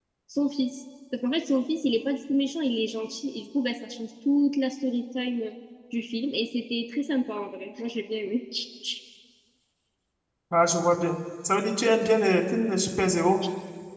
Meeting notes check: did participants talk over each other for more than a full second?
No

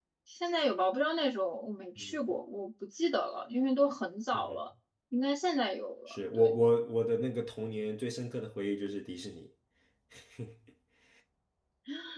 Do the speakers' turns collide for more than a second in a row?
No

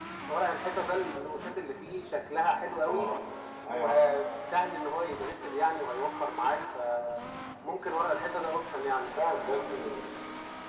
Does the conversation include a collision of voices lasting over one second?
No

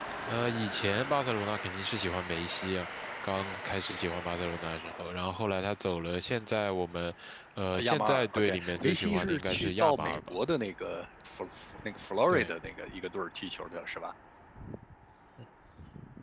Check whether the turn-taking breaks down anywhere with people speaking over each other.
Yes, from 7.7 s

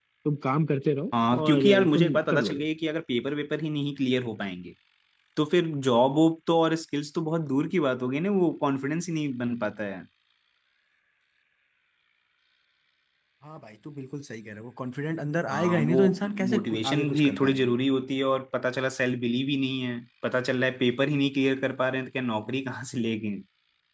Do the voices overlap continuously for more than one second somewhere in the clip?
Yes, from 1.3 s

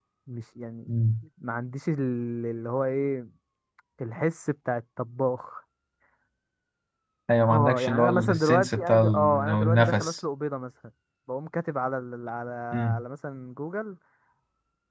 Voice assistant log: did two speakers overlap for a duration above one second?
Yes, from 7.5 s

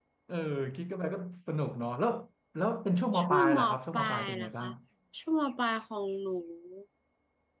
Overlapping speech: Yes, from 3.2 s

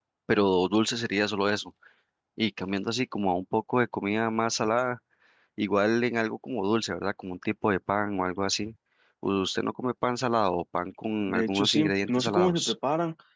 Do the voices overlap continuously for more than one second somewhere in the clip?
Yes, from 11.3 s

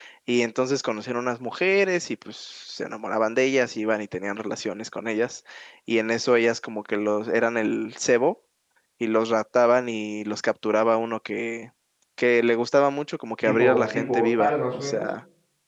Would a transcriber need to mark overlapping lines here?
Yes, from 13.4 s

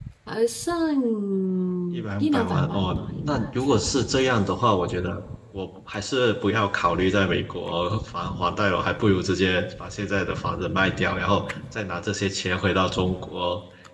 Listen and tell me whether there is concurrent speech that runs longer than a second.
Yes, from 1.9 s

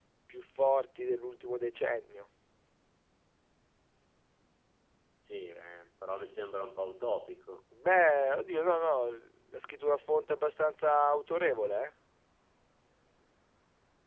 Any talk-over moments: No

